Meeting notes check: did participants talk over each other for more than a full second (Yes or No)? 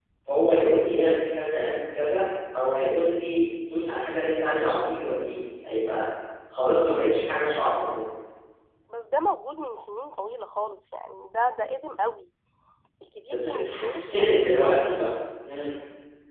Yes